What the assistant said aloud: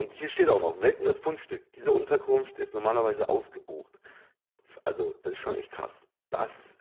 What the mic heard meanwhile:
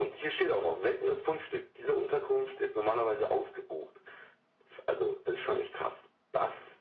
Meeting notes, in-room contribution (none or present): none